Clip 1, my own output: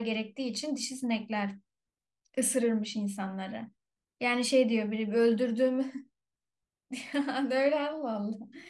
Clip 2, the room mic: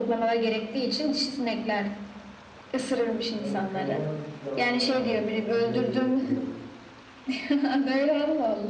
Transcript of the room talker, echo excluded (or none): Ve ondan küçük canlılar da var. Mesela onları görebiliyor mu?